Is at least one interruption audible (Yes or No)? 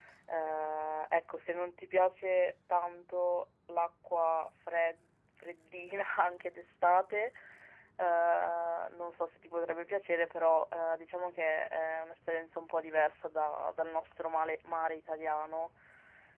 No